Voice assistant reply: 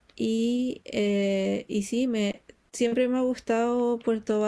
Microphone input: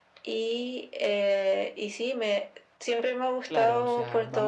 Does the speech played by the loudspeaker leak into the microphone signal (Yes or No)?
Yes